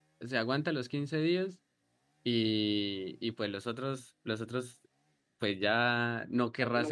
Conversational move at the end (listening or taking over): listening